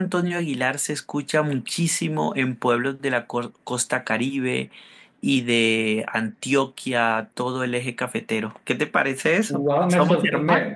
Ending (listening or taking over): taking over